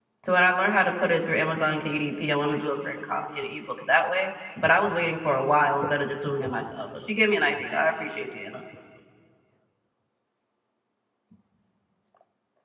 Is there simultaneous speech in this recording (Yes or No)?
No